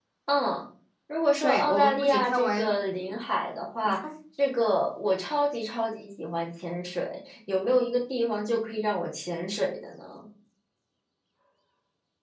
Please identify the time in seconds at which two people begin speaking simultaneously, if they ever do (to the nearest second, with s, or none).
1 s